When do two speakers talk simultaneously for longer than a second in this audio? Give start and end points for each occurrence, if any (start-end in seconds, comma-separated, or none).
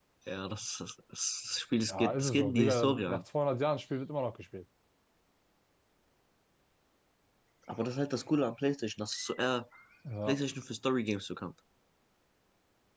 1.9-3.2